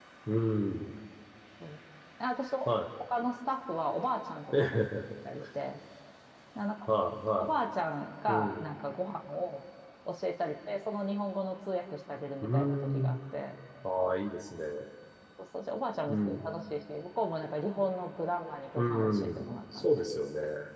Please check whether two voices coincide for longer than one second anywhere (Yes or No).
Yes